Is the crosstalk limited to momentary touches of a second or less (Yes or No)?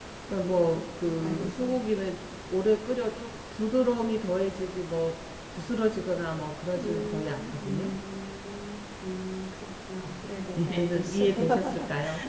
No